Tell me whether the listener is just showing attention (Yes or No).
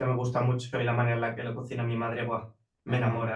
No